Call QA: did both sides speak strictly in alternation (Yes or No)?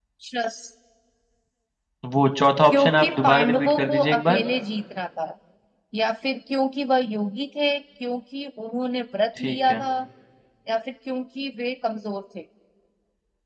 No